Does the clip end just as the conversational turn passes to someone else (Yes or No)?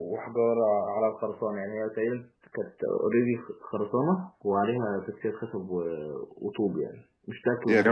Yes